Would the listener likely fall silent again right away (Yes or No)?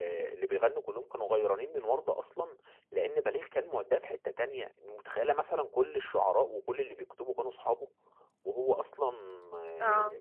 Yes